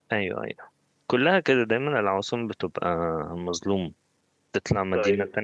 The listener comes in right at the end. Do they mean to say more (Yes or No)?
No